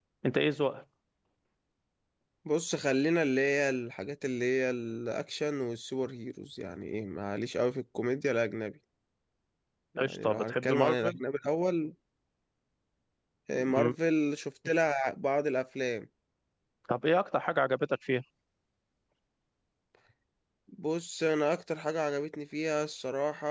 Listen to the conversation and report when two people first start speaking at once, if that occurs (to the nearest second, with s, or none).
10 s